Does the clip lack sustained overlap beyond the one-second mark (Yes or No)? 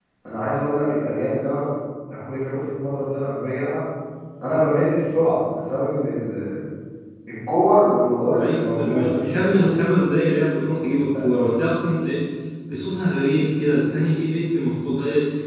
No